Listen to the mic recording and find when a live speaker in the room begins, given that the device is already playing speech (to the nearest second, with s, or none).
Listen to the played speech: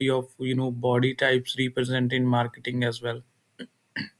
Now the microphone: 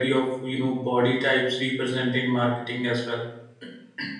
none